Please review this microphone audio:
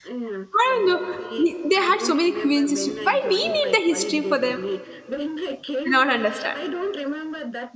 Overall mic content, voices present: both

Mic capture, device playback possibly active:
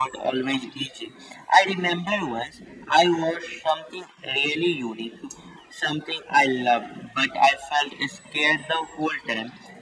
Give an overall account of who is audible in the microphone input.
echo only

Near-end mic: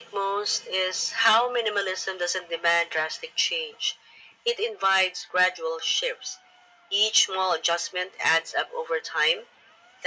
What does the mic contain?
echo only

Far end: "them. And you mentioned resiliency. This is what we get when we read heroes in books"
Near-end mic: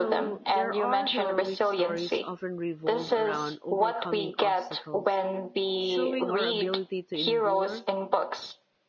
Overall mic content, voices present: both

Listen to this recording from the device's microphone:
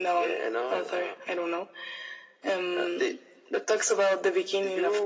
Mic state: echo only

